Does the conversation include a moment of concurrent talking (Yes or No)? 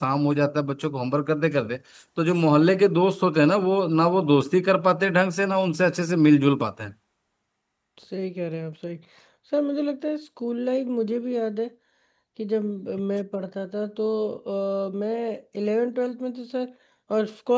No